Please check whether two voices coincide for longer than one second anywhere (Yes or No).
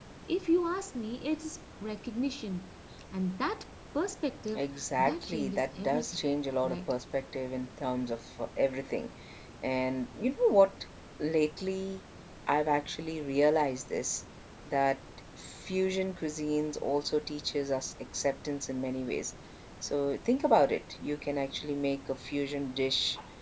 Yes